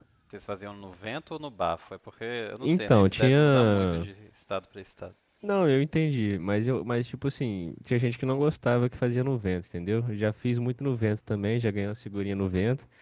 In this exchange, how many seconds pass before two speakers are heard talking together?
3 s

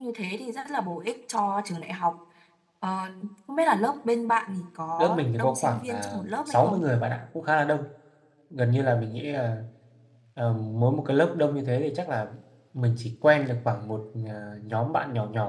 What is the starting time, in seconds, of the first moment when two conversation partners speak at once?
5 s

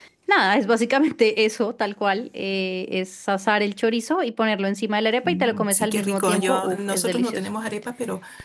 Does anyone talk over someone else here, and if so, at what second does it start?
5 s

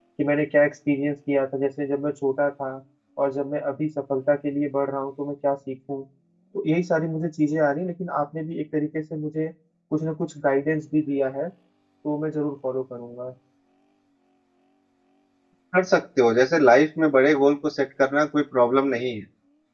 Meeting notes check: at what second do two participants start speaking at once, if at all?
none

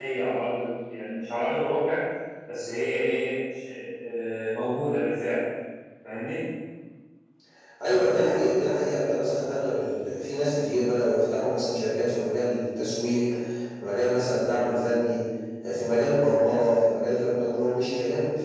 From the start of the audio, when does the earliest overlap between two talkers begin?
none

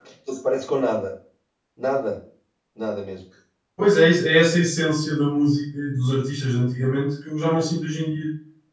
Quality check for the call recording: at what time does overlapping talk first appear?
none

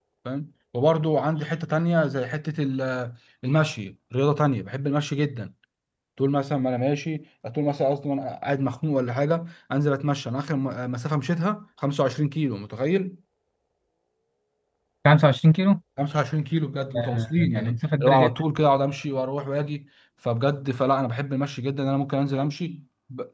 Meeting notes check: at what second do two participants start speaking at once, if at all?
17 s

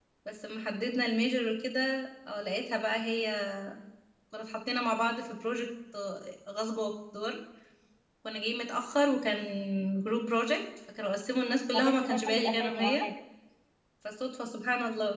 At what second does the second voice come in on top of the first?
12 s

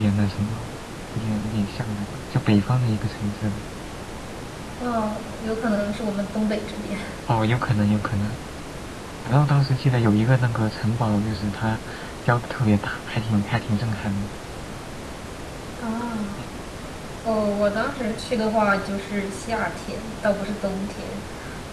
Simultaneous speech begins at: none

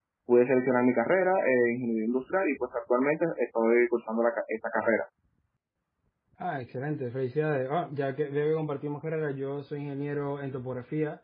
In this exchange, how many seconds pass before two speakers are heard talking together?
none

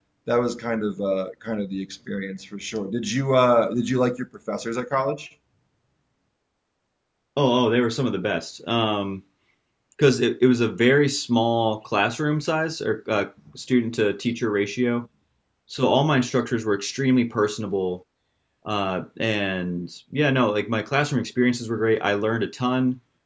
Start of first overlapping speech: none

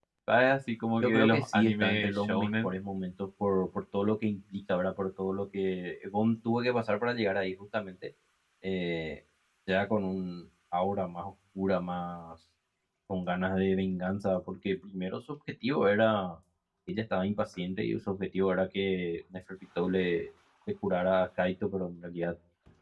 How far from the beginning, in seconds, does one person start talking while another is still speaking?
1 s

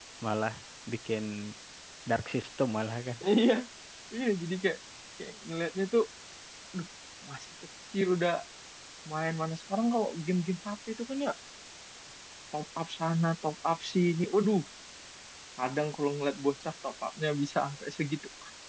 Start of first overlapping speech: none

